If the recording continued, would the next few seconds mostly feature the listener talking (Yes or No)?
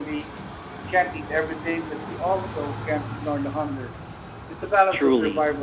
Yes